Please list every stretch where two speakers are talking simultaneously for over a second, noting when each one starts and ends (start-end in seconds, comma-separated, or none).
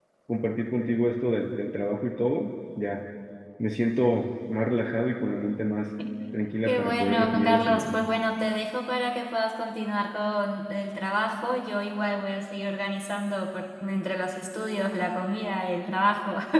6.7-8.0